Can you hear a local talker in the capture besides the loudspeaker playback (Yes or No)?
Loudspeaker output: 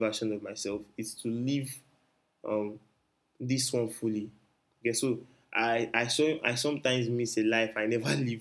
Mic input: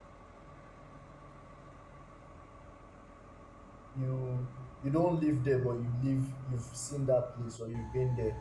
Yes